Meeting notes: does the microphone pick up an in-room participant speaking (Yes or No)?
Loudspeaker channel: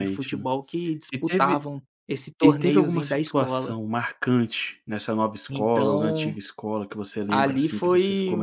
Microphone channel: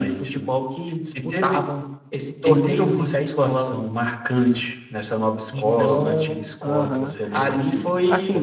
Yes